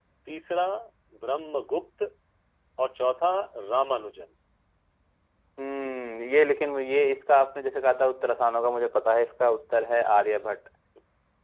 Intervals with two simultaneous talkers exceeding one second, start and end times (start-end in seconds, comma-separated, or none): none